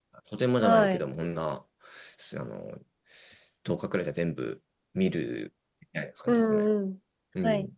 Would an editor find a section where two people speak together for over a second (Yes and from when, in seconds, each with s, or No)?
No